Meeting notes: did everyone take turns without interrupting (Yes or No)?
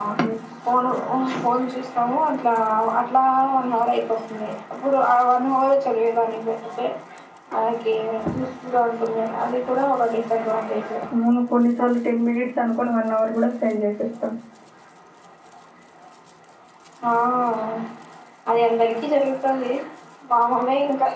Yes